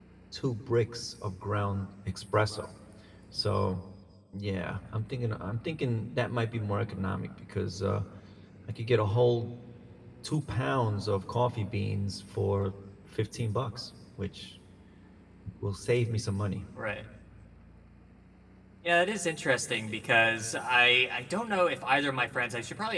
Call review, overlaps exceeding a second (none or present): none